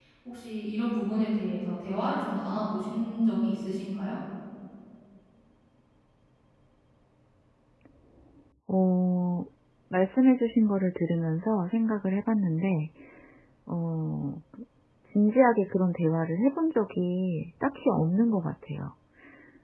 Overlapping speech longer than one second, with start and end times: none

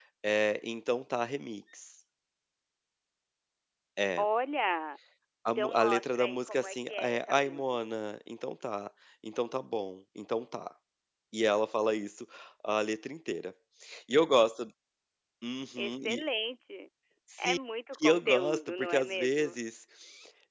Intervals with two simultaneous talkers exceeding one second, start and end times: 5.6-7.6, 18.0-19.6

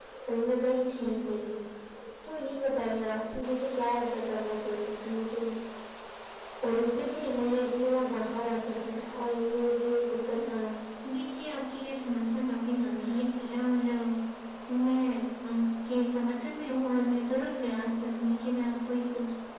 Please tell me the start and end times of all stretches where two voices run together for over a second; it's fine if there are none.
none

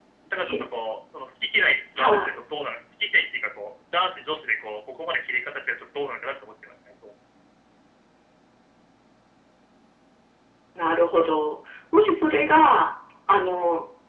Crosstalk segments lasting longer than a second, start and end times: none

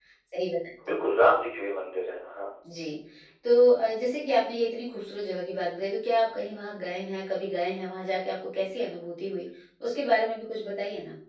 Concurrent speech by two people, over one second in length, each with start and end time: none

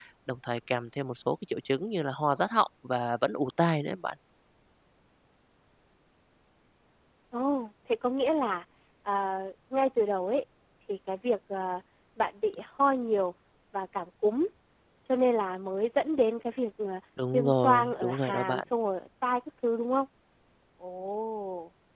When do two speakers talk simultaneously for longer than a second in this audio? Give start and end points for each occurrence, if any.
17.3-18.6

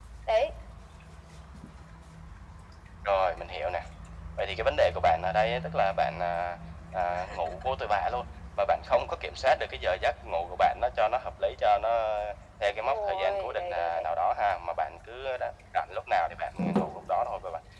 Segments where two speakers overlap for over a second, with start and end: 12.7-14.1

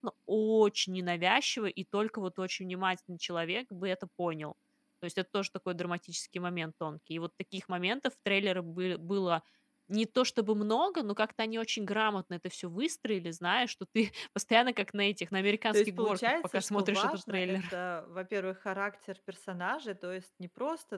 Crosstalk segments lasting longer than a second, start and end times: 15.7-17.8

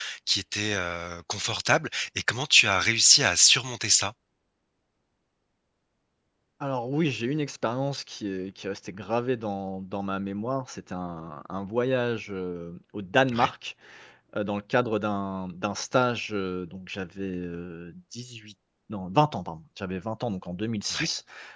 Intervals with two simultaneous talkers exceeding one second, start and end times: none

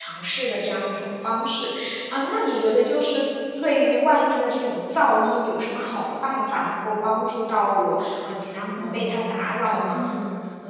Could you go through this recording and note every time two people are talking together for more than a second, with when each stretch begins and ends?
8.8-10.1

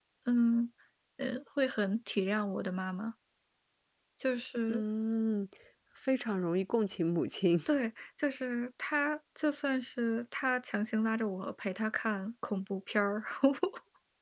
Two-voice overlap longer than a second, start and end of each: none

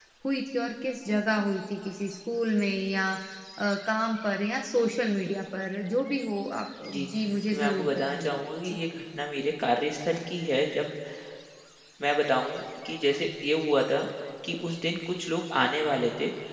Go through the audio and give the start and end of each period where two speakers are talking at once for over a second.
7.5-8.8

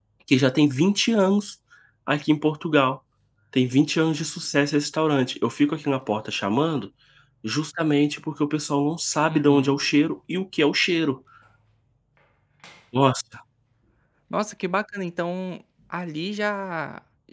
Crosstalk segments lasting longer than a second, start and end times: none

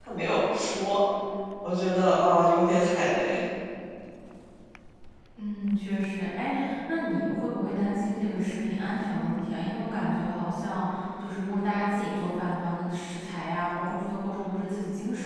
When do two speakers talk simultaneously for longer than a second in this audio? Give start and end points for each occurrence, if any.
none

